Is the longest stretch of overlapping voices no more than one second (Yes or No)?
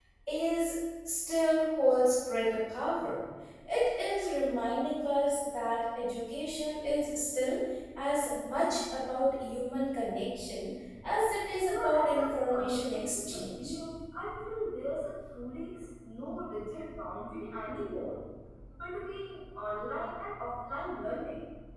No